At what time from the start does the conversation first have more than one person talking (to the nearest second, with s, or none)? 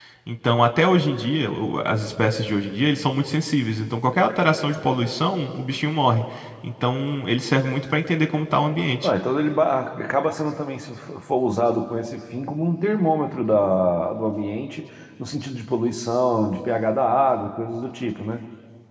none